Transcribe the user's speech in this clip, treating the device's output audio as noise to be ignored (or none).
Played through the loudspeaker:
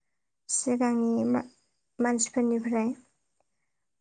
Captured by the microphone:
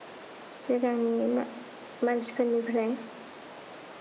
none